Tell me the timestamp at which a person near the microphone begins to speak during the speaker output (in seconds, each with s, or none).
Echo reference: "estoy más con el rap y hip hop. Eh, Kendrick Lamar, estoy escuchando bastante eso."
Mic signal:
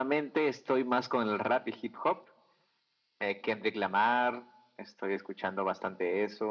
none